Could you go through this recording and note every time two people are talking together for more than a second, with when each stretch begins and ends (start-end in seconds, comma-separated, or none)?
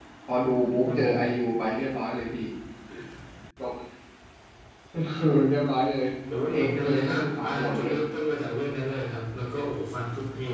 6.5-7.9